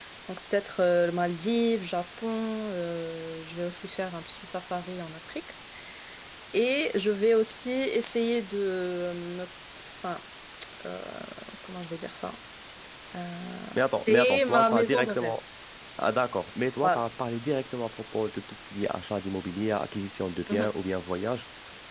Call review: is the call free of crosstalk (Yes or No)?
No